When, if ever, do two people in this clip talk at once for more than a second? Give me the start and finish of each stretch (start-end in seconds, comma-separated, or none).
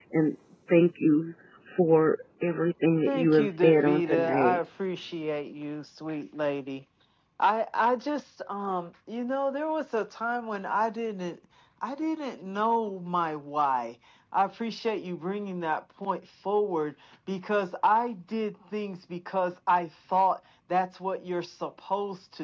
3.1-4.6